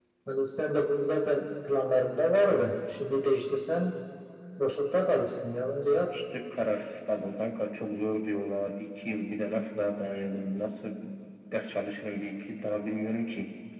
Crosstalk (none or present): none